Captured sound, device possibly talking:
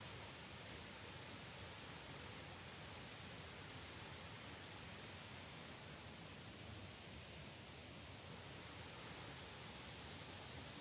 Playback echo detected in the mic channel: No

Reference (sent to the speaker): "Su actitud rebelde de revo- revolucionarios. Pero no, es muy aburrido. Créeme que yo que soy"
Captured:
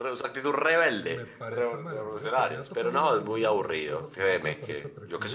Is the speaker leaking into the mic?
Yes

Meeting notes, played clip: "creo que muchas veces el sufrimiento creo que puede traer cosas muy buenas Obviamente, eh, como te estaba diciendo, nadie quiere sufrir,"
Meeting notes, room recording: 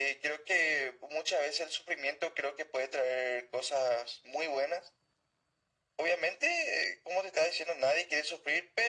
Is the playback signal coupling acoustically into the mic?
Yes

